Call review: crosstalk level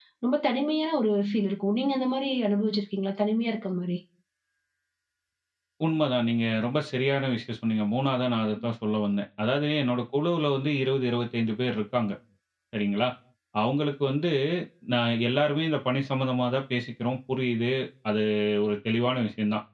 none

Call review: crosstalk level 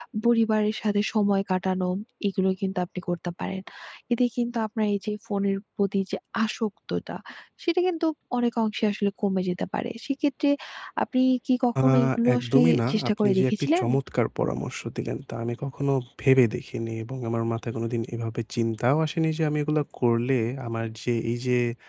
present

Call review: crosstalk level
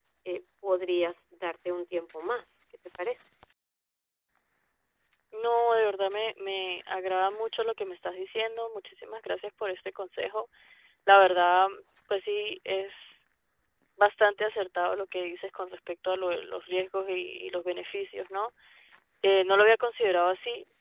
none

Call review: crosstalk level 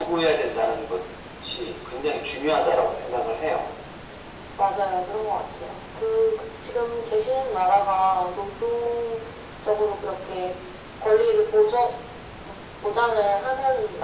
none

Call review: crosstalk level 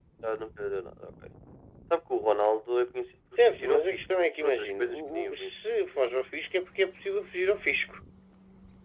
present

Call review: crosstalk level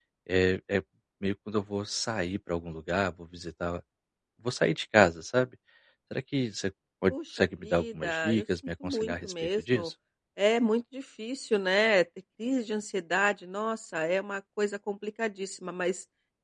present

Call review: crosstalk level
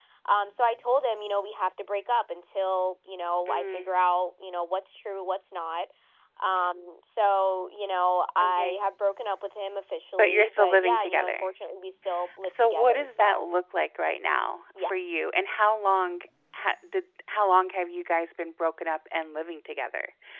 present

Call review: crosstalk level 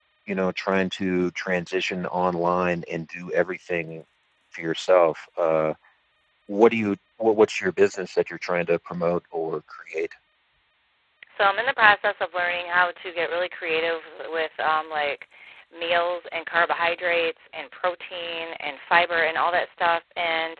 none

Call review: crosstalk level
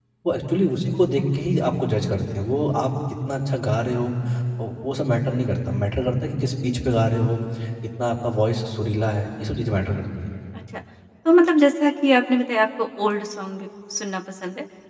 none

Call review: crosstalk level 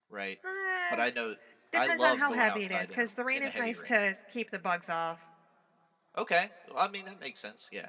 present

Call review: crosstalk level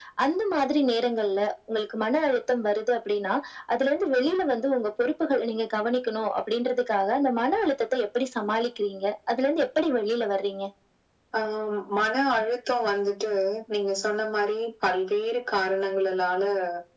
none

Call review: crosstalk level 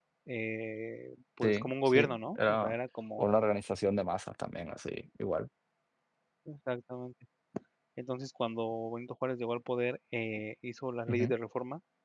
present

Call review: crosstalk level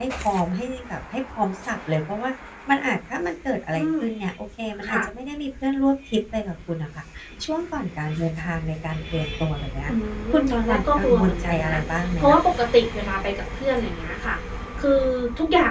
present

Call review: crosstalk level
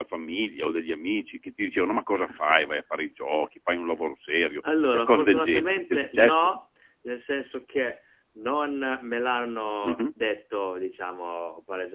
present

